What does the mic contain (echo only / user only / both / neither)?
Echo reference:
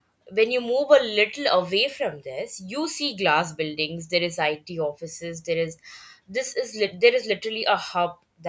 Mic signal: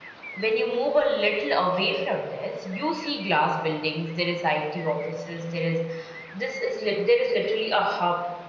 echo only